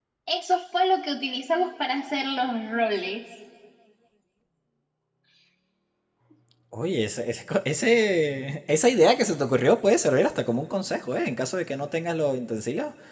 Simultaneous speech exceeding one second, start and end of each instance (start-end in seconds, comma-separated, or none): none